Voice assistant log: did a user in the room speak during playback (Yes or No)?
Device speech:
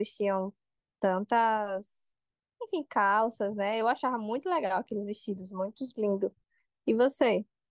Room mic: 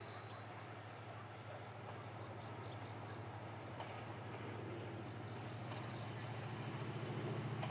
No